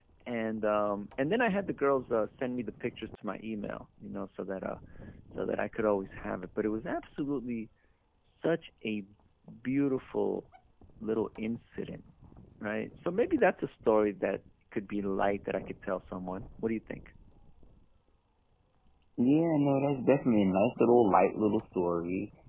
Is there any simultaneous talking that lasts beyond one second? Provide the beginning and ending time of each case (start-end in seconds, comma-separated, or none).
none